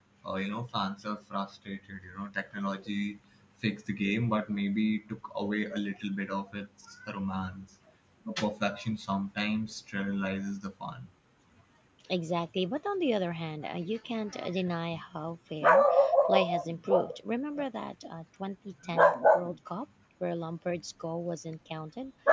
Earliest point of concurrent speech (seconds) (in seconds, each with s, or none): none